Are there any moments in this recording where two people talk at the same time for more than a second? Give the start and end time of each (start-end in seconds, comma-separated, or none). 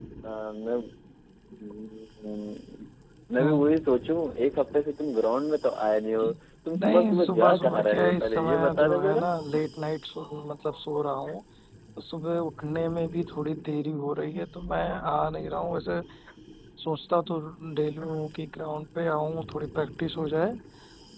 6.8-9.2